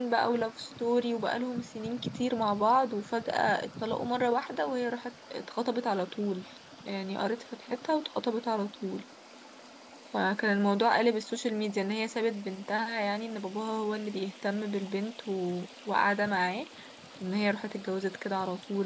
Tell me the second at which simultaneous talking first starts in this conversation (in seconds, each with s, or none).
none